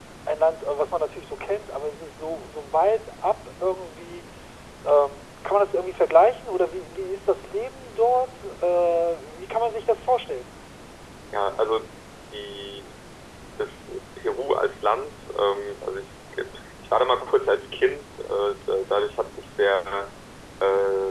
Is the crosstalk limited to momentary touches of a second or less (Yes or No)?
Yes